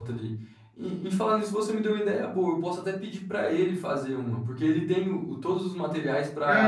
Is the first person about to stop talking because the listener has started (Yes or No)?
Yes